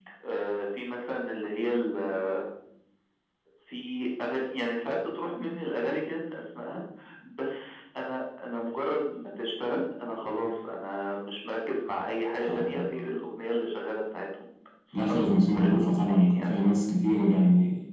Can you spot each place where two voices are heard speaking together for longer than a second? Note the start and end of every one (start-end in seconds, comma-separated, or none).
14.9-16.5